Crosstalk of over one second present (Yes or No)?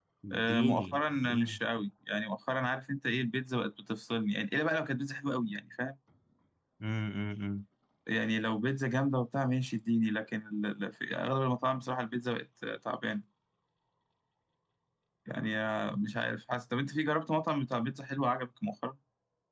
Yes